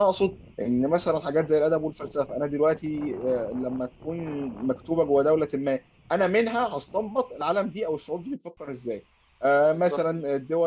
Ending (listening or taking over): listening